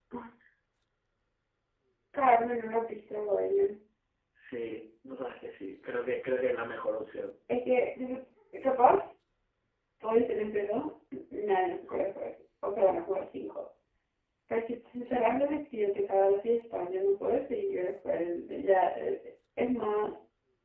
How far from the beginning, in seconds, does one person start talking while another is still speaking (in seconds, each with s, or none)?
none